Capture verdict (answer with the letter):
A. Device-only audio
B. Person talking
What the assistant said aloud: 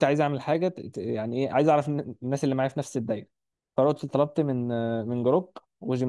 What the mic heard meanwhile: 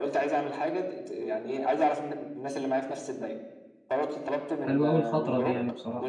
B